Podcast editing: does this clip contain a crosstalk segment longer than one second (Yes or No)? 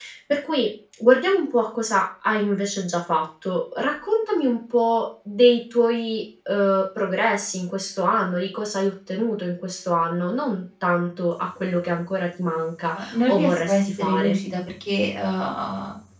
Yes